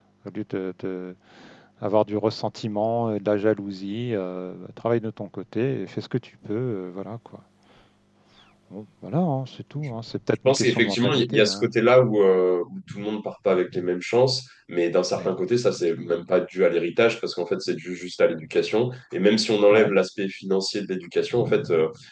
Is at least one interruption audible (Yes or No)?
Yes